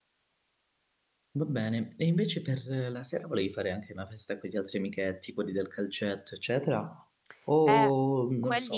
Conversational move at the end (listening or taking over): taking over